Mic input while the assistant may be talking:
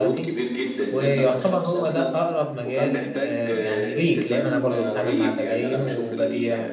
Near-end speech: present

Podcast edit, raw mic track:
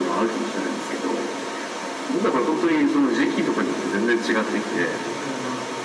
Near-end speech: present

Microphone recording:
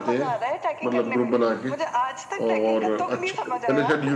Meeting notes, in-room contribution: present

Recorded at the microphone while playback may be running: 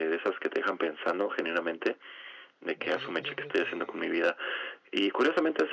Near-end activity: present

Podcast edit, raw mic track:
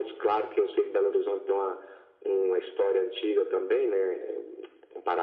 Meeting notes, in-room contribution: none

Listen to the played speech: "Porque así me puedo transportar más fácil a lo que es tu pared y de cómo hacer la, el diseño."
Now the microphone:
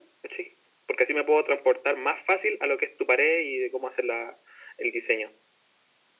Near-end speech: none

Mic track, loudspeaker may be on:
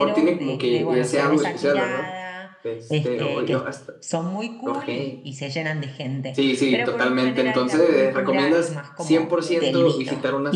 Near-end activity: present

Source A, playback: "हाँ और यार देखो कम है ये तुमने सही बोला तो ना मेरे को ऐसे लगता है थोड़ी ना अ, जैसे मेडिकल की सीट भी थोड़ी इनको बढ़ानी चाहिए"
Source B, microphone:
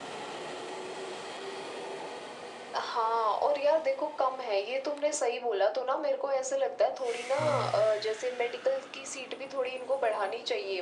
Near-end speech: present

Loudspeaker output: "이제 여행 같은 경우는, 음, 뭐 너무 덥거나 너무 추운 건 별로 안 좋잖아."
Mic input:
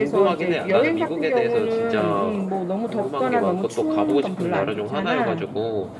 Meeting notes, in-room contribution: present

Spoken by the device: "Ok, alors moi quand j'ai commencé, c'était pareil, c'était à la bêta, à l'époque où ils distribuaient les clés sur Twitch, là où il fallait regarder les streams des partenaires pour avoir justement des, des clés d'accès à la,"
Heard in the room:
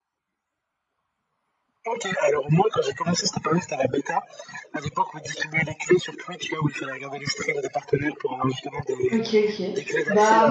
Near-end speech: present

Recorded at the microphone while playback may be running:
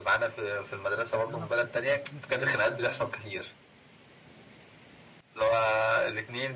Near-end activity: present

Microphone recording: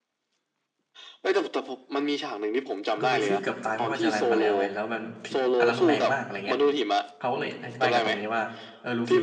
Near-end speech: present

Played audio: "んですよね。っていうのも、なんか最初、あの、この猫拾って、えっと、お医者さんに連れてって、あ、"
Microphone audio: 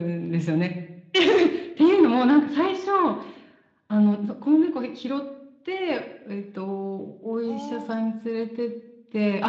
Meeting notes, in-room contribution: present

